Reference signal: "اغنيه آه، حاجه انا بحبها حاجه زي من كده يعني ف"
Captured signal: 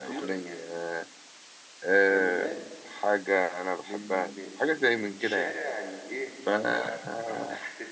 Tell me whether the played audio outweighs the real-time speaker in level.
Yes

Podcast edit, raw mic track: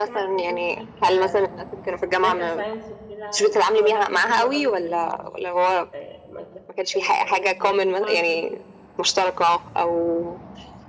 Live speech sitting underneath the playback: Yes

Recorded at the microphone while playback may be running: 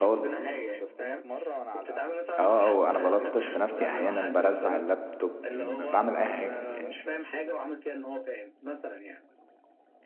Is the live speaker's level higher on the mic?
Yes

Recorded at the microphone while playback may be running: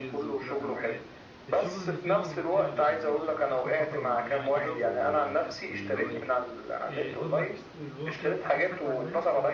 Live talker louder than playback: No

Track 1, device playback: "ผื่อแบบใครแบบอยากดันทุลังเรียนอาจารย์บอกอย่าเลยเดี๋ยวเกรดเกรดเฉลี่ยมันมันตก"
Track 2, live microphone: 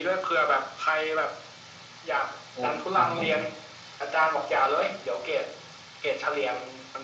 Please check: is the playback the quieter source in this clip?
No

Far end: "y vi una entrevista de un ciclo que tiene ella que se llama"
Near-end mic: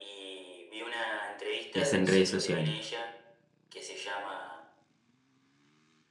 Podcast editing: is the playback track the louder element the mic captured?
No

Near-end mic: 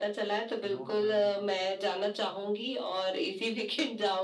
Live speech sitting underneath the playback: Yes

